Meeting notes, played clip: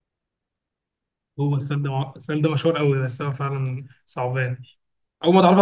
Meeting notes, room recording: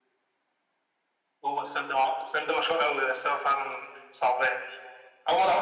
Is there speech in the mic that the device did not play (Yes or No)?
No